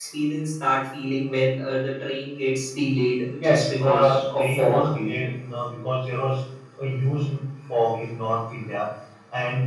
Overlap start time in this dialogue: 3.4 s

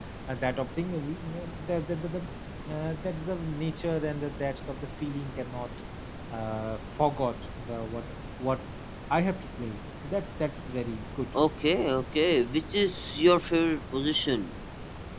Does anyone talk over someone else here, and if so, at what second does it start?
none

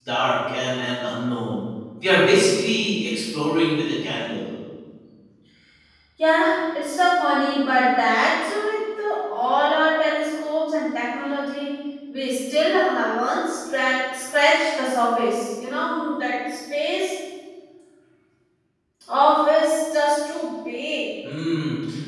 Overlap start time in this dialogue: none

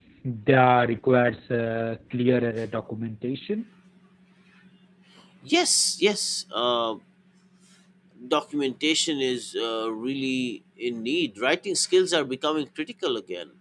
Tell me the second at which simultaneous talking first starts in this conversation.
none

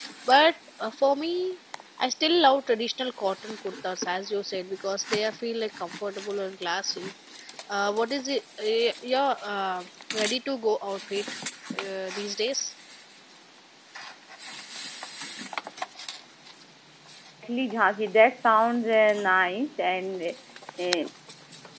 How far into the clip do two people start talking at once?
none

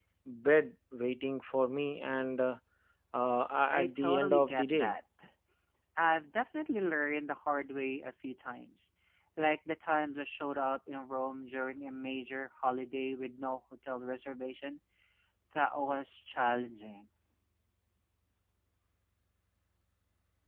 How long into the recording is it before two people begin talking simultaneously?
3.7 s

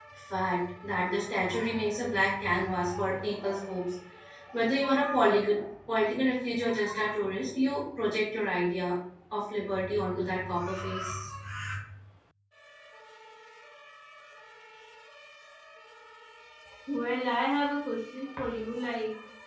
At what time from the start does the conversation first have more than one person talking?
none

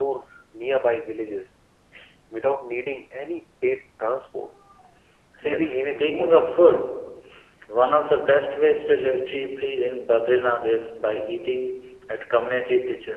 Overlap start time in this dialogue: 5.4 s

